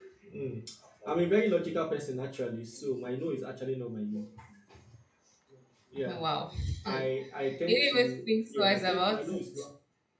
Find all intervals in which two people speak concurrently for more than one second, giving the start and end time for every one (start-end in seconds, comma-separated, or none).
7.6-9.4